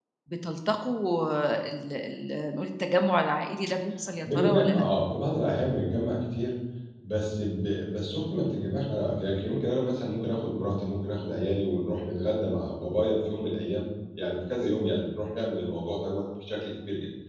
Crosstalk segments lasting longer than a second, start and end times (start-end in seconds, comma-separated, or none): none